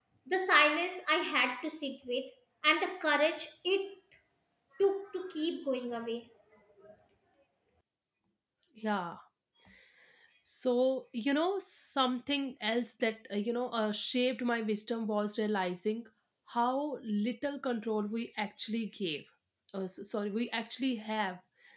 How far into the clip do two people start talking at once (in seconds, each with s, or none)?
none